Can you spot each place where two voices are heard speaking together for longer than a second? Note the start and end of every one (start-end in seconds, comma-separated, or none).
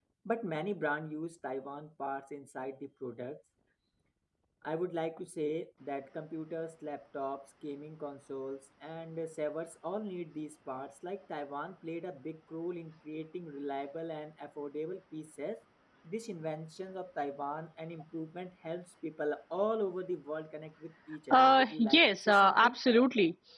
21.3-22.8